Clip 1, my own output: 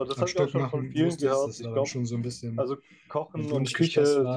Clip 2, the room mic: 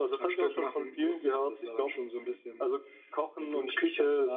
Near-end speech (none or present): none